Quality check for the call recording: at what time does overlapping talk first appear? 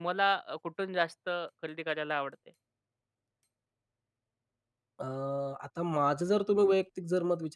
none

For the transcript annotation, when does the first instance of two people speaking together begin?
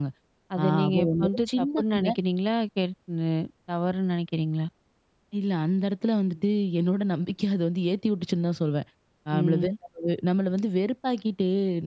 0.6 s

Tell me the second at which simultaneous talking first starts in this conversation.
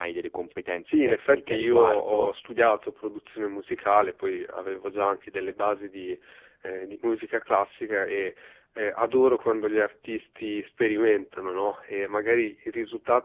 0.8 s

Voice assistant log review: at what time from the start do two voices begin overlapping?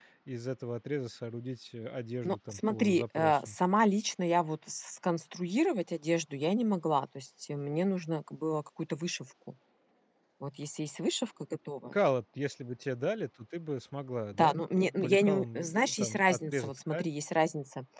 2.2 s

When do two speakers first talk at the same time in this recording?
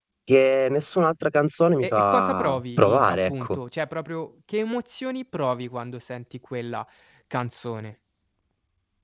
1.8 s

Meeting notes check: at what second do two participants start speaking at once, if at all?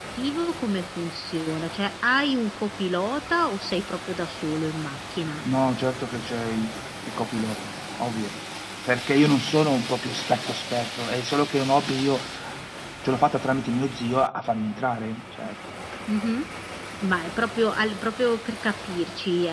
none

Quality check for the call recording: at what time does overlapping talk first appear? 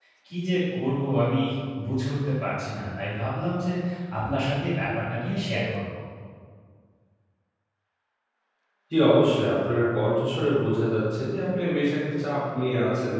none

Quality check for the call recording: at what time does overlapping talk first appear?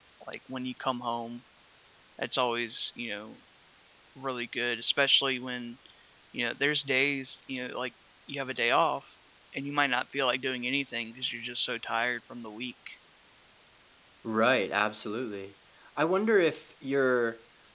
none

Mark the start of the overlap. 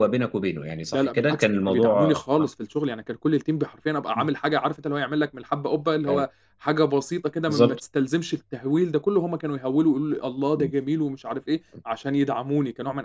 0.9 s

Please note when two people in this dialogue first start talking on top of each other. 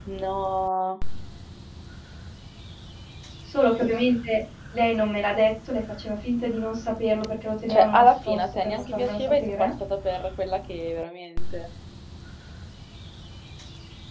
7.7 s

